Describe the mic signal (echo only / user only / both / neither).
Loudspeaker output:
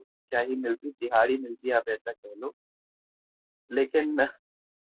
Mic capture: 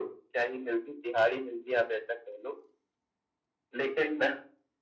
echo only